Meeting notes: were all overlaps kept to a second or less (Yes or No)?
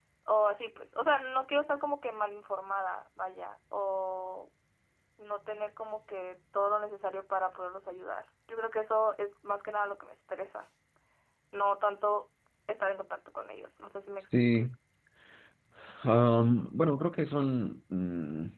Yes